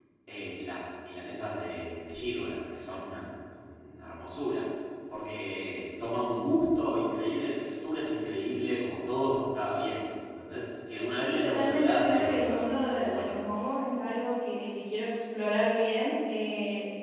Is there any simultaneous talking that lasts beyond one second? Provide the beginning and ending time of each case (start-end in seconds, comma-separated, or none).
11.2-13.3